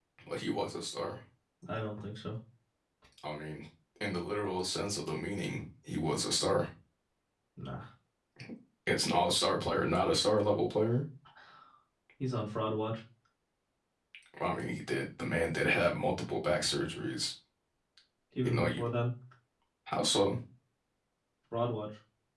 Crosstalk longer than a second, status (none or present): none